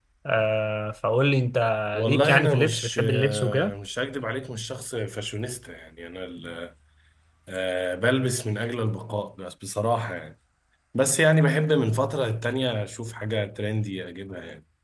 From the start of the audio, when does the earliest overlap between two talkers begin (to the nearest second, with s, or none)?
2 s